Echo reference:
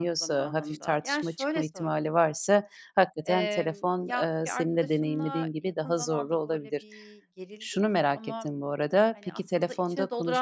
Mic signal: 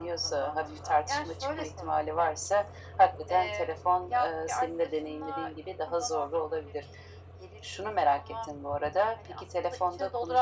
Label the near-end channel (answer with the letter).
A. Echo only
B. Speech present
A